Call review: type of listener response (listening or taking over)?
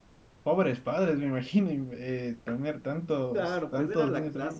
taking over